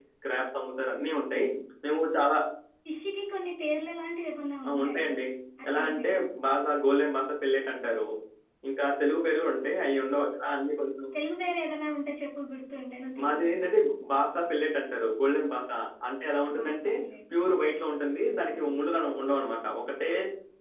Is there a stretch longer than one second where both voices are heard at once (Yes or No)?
No